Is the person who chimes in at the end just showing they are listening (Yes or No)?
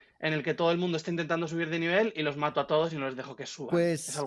No